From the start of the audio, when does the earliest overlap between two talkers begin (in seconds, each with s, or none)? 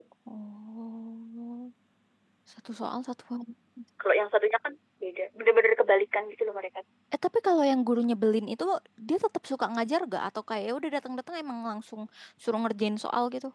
none